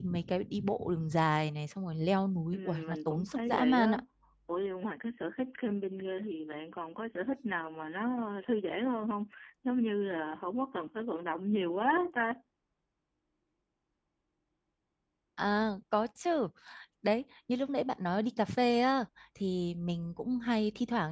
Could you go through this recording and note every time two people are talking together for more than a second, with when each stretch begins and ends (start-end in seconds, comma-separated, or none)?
2.5-4.0